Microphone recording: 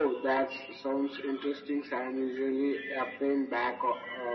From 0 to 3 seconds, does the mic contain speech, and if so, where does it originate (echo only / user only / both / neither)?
echo only